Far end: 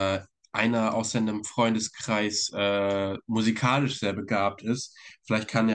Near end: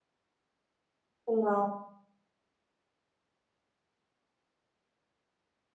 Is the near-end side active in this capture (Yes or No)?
Yes